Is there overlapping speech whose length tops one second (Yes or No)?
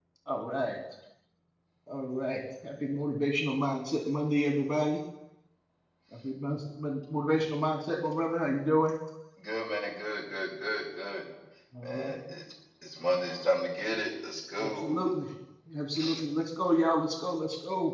No